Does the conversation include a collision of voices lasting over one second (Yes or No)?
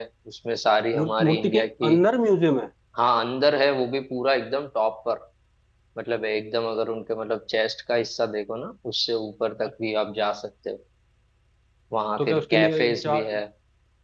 Yes